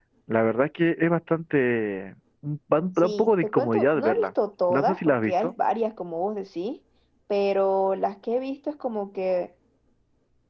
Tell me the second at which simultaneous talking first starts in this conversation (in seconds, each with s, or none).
3.0 s